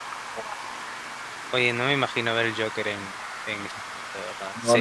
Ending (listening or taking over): taking over